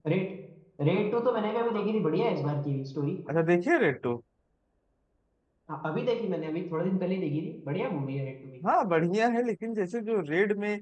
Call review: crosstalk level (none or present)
none